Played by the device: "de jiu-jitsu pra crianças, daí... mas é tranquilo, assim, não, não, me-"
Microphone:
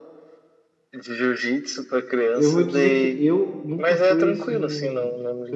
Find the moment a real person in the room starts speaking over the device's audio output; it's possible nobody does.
2.3 s

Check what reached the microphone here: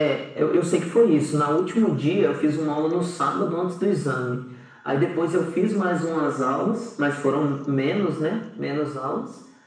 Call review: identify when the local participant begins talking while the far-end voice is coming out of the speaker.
none

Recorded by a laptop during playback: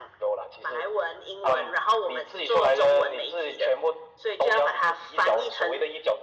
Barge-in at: none

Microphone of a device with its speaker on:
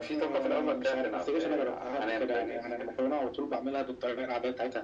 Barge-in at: none

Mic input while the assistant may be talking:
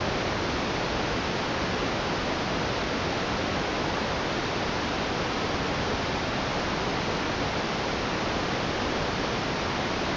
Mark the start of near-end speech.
none

